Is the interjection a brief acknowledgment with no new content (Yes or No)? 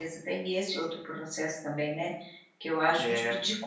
Yes